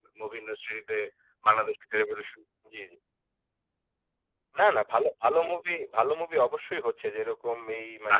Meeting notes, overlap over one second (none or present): none